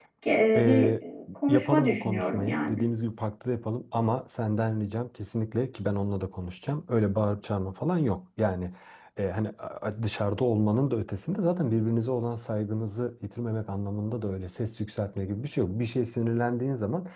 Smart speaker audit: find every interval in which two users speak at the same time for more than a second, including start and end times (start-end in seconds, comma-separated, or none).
1.5-2.9